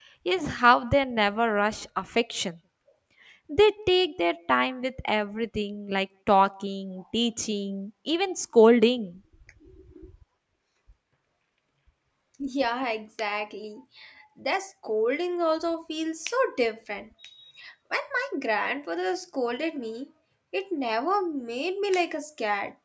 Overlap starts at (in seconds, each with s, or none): none